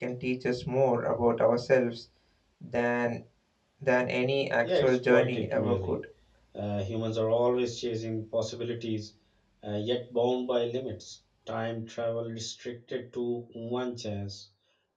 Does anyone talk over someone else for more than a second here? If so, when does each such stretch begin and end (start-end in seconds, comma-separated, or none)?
4.6-5.9